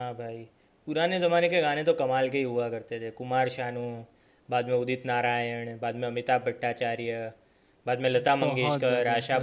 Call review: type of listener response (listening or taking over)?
taking over